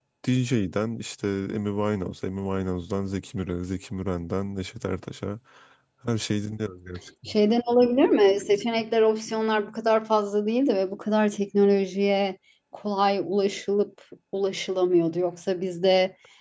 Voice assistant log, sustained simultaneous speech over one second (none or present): none